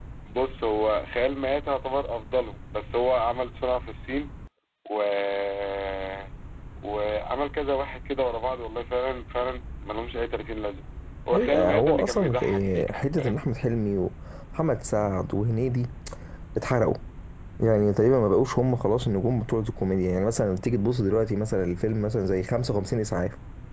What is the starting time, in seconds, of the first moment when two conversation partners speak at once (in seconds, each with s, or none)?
11.3 s